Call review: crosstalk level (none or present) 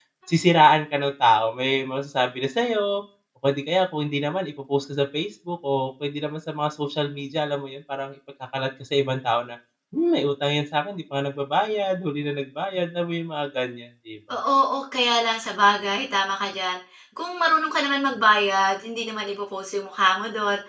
none